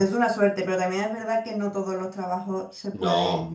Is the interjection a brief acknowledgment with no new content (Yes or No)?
Yes